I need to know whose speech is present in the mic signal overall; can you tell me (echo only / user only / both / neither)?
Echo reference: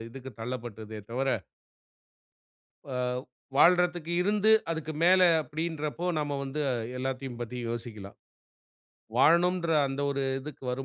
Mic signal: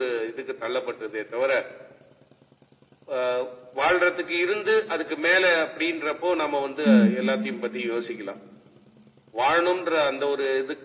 both